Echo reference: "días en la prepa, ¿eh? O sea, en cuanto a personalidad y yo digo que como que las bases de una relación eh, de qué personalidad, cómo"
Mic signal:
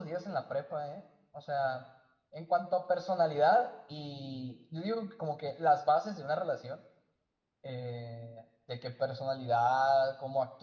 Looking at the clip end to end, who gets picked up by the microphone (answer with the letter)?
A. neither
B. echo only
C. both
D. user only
B